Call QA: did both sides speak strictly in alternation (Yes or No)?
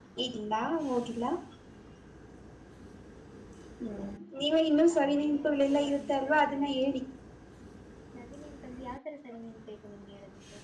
No